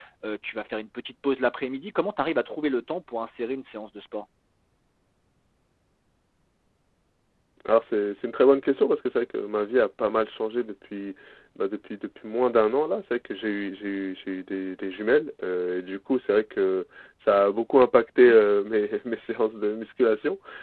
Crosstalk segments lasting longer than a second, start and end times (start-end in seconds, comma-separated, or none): none